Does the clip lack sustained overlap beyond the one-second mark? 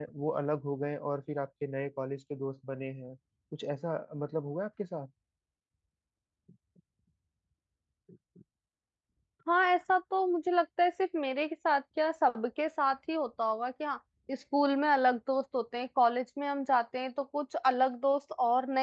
Yes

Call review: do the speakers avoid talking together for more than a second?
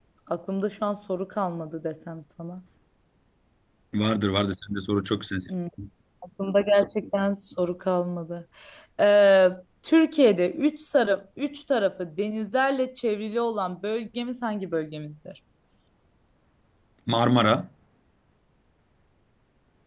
Yes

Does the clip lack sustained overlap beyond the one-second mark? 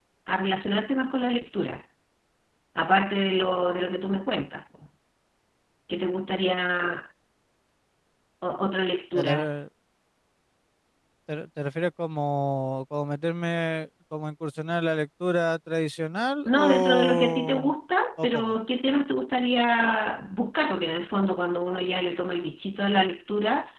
No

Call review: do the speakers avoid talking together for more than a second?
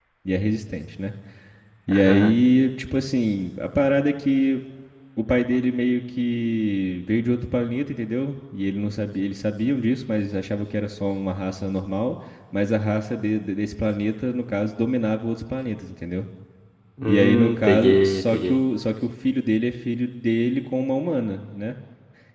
No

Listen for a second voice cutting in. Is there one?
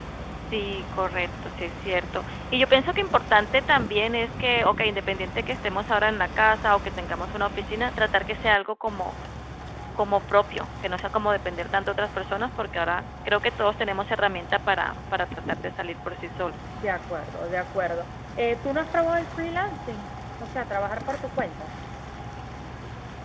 No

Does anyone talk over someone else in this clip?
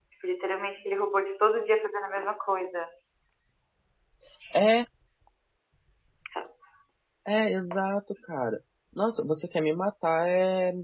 No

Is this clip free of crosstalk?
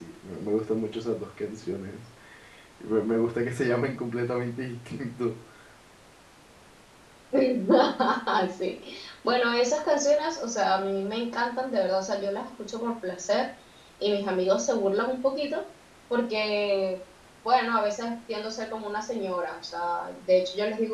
Yes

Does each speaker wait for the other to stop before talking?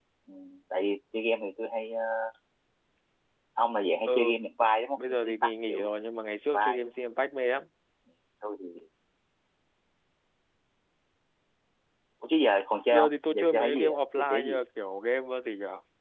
No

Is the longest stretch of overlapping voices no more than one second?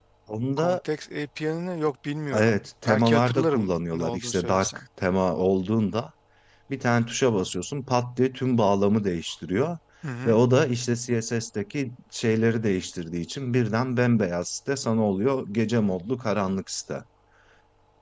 No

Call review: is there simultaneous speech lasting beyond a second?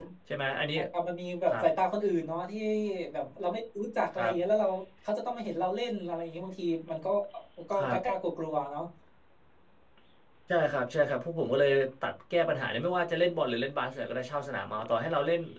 No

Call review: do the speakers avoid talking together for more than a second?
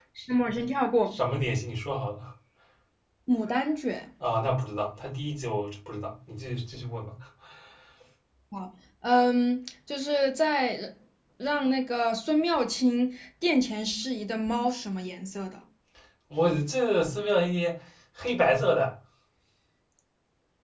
Yes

